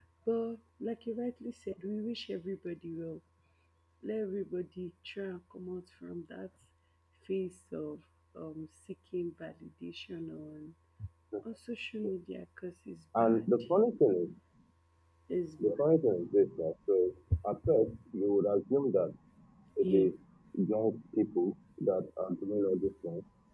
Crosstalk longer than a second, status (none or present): none